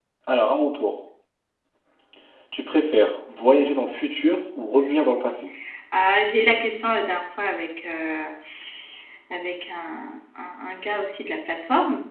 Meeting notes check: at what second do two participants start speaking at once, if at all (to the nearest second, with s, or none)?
none